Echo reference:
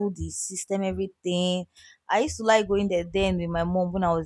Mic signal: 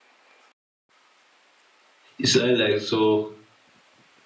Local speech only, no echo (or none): It sounds like so.